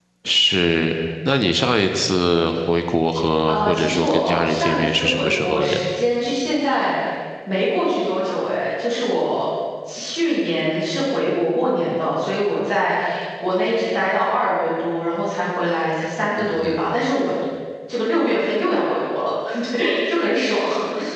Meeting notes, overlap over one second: present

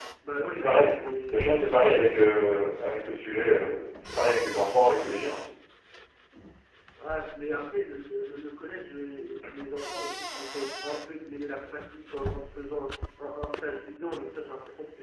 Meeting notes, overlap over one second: none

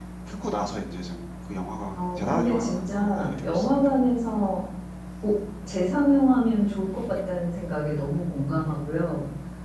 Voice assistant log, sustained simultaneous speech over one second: present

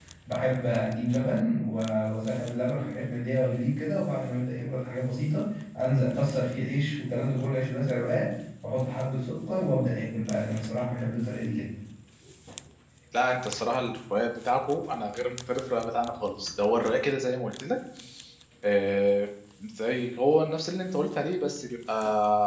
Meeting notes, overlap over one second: none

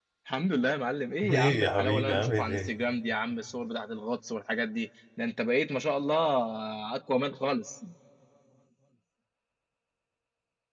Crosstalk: present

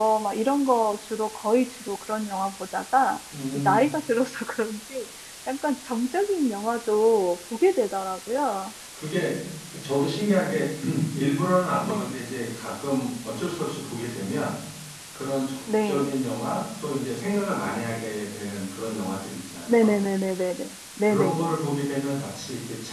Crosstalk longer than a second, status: none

